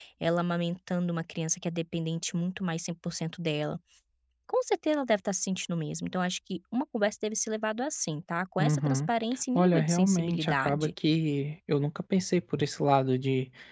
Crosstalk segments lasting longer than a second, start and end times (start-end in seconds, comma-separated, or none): 9.6-10.9